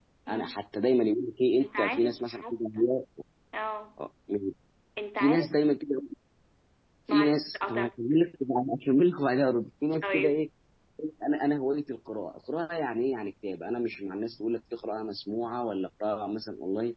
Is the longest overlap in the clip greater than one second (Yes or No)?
Yes